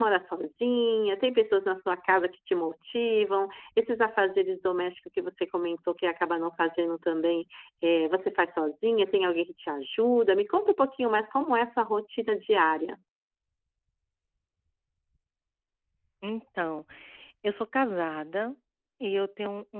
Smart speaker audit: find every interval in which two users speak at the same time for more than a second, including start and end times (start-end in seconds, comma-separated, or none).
none